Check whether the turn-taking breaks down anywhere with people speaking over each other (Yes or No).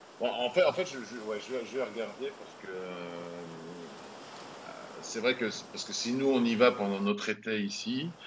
No